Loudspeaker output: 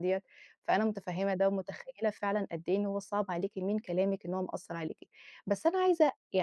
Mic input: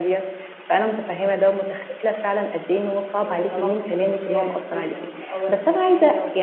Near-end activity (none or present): present